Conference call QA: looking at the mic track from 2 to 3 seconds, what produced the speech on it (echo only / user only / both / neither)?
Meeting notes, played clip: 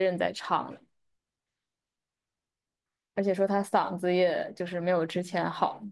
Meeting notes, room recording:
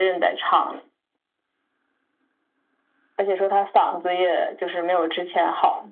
neither